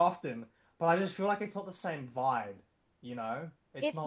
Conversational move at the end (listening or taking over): taking over